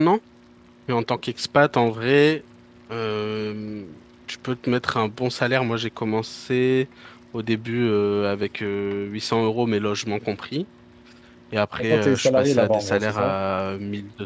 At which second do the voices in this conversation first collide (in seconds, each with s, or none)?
11.8 s